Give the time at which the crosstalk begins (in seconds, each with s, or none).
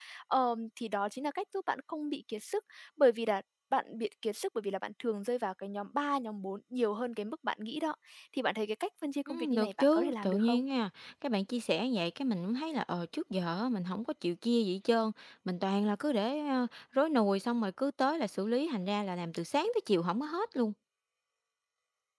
9.3 s